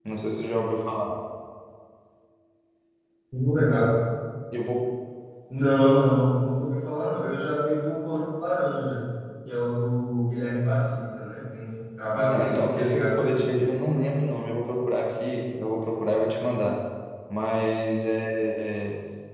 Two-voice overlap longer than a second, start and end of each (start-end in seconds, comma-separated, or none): 12.2-13.5